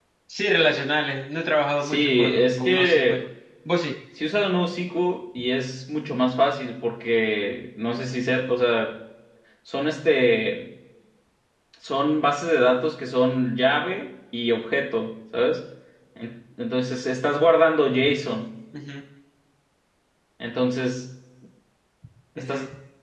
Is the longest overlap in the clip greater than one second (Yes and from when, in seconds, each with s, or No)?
Yes, from 1.8 s